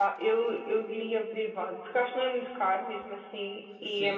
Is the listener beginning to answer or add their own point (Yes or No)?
Yes